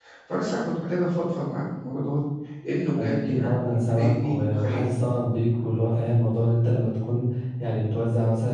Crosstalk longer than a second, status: present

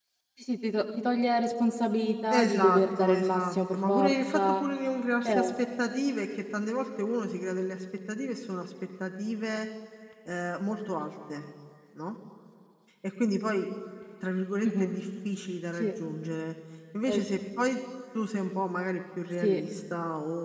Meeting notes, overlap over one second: present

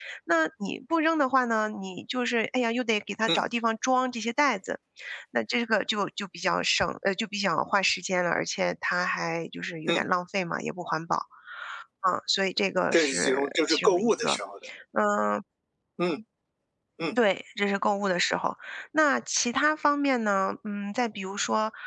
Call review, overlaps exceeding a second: present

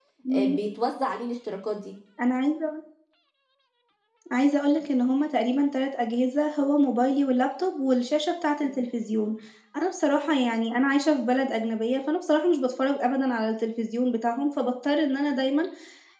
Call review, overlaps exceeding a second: none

